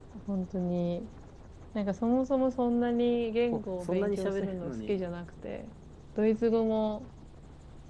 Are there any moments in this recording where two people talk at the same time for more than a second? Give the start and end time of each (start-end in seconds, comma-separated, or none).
3.5-5.0